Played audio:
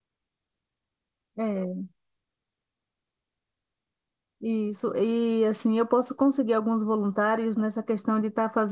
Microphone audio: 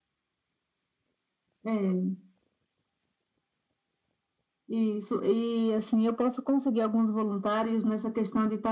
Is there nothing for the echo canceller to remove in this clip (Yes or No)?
No